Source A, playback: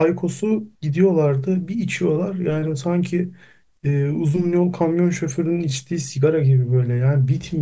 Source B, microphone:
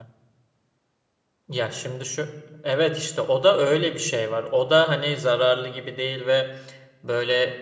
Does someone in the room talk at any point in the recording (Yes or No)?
Yes